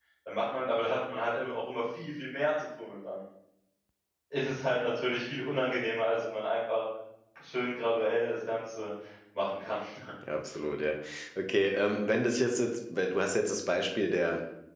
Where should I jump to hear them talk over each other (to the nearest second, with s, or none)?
none